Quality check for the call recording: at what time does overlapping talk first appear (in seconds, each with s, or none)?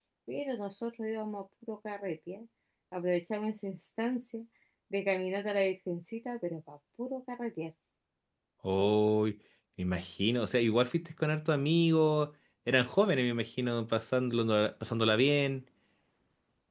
none